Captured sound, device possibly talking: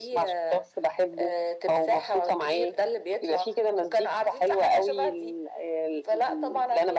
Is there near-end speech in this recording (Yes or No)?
No